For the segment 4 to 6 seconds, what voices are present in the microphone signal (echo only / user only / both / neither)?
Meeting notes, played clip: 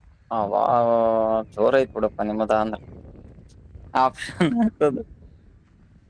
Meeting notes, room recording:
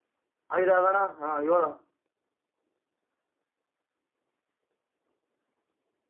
neither